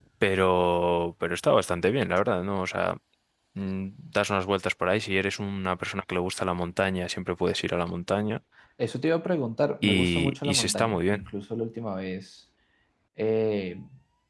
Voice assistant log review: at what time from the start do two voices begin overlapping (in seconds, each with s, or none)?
9.8 s